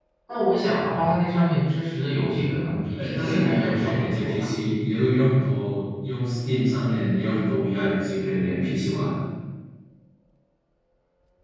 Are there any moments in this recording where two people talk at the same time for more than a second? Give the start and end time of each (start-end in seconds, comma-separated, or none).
2.9-4.5